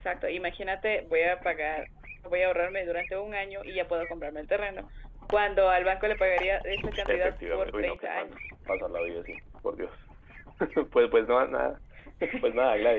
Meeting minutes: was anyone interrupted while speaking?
Yes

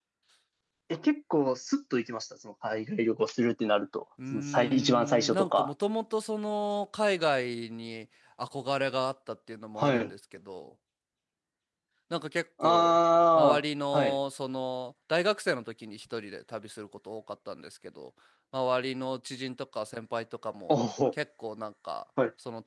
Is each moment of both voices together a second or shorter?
No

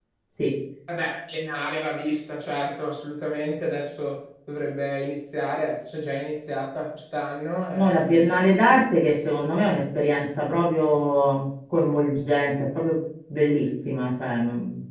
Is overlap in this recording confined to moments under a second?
Yes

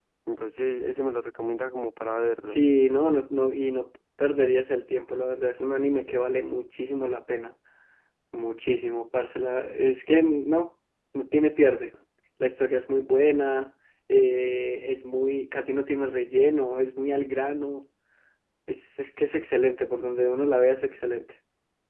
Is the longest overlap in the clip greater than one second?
No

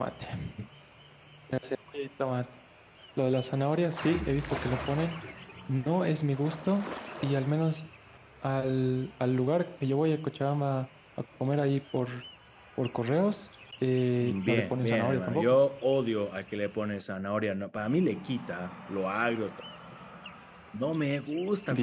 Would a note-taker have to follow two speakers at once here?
Yes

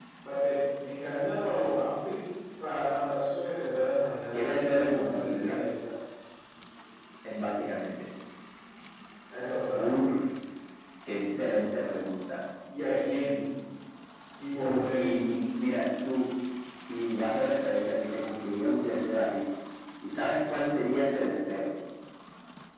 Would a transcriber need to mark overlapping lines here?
Yes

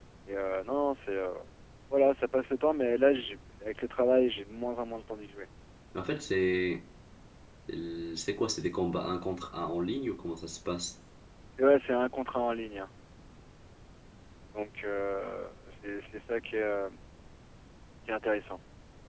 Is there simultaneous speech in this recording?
No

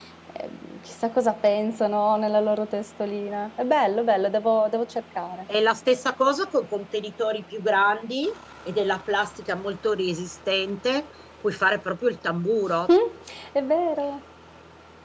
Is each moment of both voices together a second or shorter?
Yes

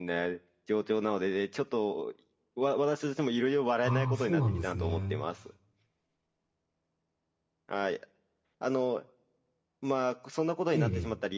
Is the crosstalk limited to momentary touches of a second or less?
No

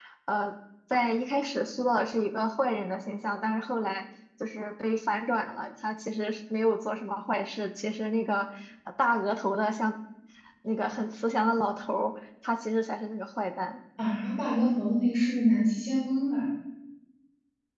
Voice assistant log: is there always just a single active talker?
Yes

